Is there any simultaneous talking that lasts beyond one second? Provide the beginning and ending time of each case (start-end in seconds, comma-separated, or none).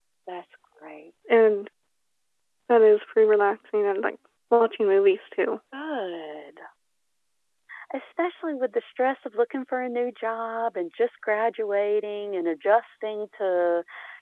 none